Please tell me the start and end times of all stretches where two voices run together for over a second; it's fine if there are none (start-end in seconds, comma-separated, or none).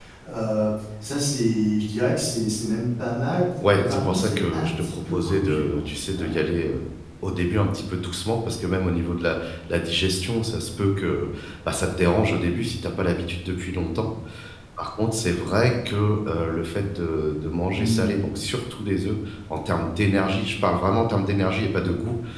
3.8-6.4